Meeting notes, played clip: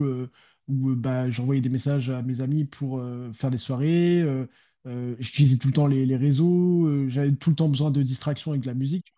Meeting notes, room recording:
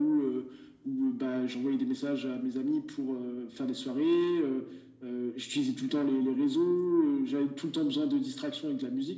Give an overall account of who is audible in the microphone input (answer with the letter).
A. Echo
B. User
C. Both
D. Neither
A